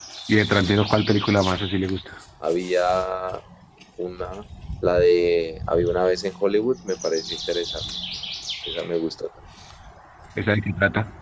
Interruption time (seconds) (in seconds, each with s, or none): none